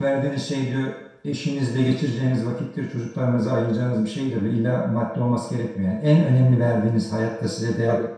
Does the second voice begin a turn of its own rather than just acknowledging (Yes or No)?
No